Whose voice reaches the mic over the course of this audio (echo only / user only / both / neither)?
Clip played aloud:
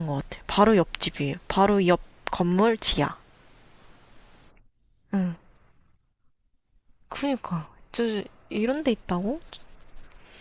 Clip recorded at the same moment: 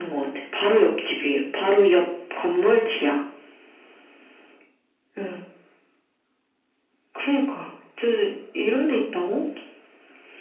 echo only